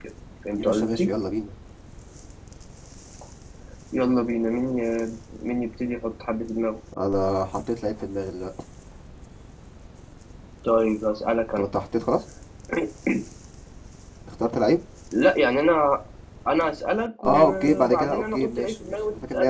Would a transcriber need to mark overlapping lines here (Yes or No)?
Yes